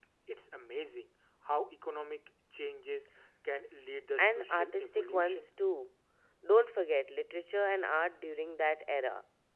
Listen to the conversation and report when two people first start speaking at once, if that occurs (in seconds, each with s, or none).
4.2 s